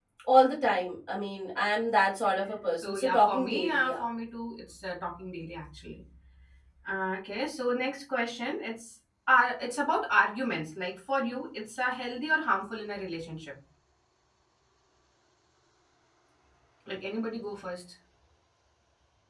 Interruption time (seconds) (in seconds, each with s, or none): 2.4 s